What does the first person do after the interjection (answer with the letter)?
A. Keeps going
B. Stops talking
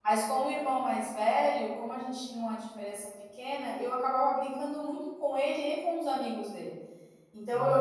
A